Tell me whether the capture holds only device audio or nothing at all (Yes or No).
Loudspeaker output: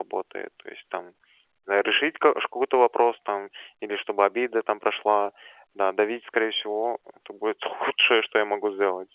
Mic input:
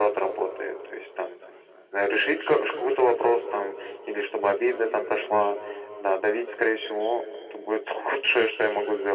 Yes